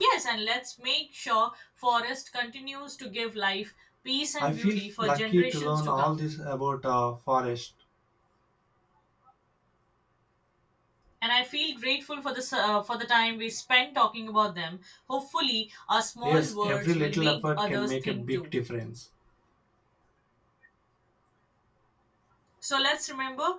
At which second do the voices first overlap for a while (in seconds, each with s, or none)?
4.4 s